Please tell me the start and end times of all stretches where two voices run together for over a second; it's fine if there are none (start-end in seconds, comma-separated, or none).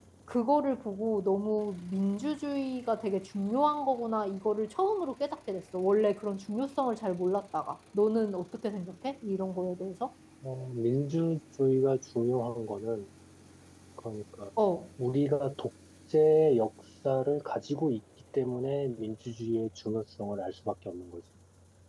none